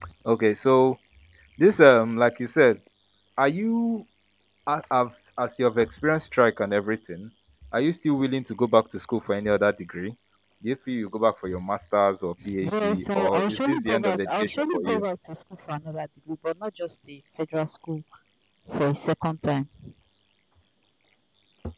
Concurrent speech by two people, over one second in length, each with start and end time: 12.6-15.0

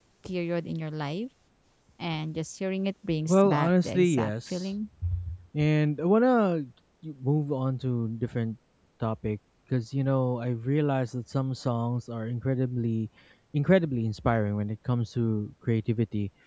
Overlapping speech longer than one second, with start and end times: 3.3-4.6

